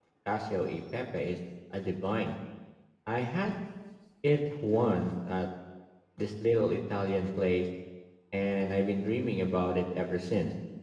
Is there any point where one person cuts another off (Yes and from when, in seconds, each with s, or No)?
No